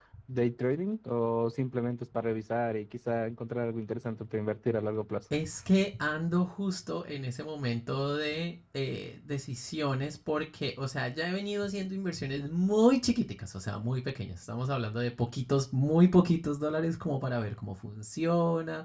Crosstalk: none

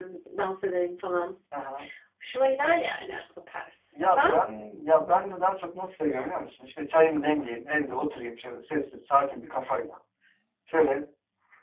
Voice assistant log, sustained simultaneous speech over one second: none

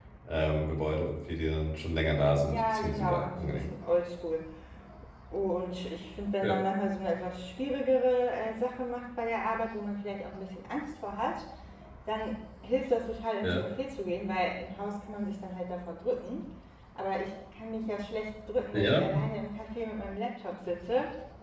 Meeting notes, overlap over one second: present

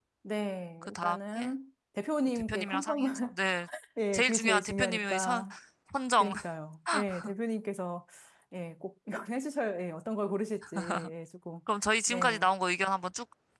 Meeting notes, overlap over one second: present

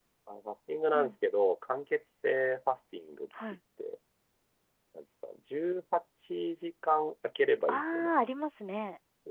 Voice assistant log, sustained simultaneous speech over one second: none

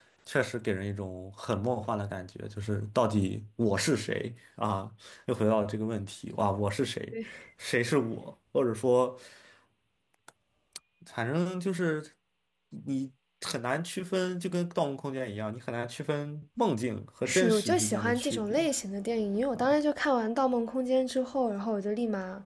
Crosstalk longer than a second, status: present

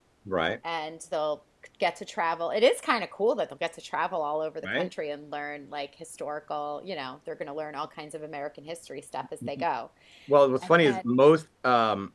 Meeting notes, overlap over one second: none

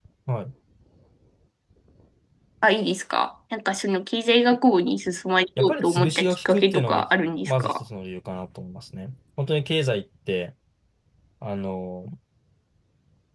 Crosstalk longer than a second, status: present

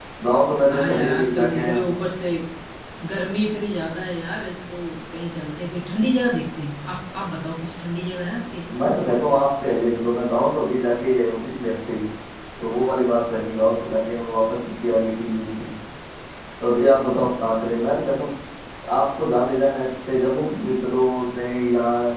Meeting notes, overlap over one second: present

